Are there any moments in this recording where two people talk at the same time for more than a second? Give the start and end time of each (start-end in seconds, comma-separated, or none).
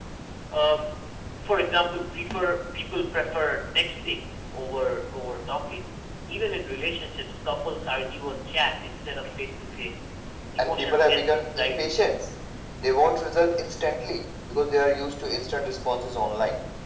10.6-12.1